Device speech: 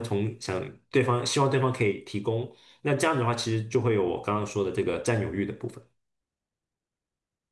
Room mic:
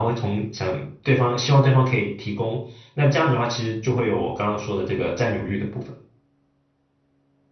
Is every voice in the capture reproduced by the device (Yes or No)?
Yes